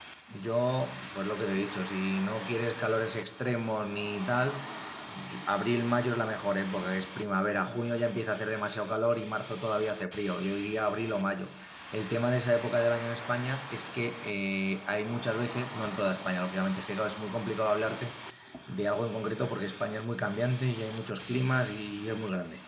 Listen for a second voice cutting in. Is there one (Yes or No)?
No